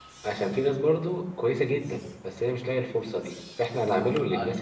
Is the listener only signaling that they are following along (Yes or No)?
Yes